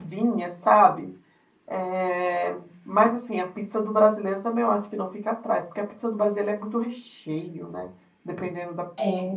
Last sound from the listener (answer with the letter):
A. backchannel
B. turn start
B